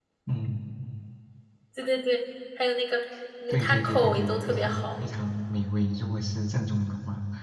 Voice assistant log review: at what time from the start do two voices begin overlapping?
3.5 s

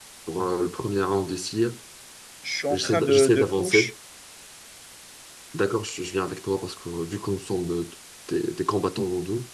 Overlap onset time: 2.7 s

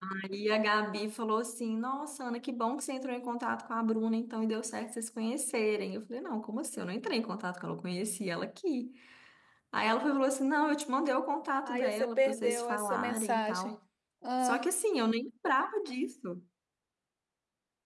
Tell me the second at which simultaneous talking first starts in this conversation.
11.7 s

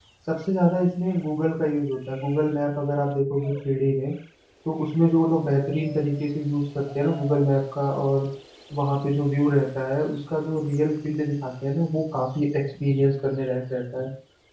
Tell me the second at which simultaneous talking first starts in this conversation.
none

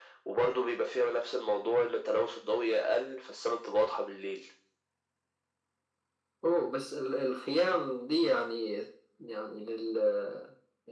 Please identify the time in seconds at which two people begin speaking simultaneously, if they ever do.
none

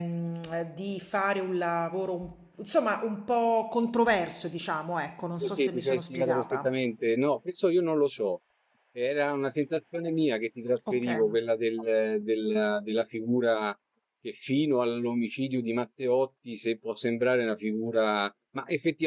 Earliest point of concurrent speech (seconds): 5.4 s

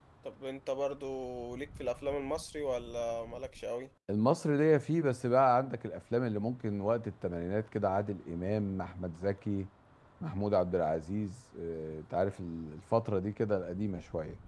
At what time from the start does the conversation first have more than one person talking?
none

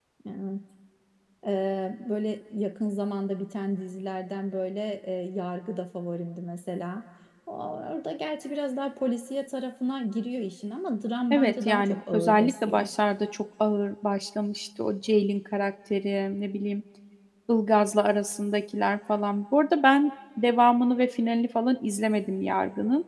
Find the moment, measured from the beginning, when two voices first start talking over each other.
11.3 s

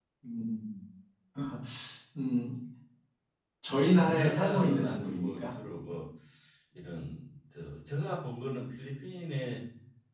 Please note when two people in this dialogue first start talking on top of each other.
4.0 s

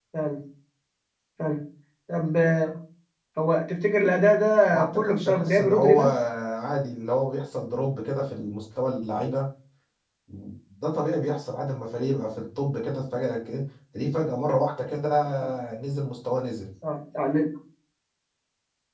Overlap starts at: 4.7 s

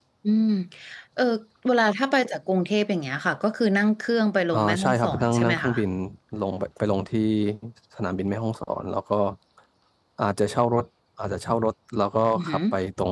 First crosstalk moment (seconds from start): 4.5 s

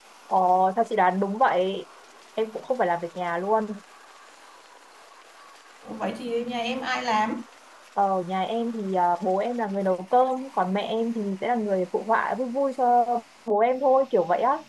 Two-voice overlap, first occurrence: none

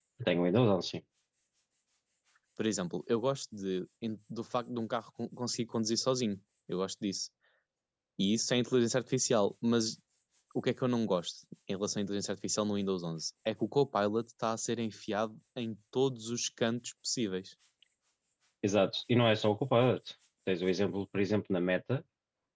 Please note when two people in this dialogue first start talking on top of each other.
none

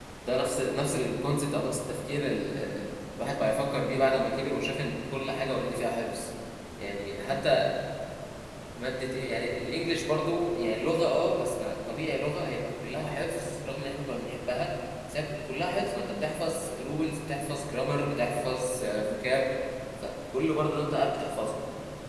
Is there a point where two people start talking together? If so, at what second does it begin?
none

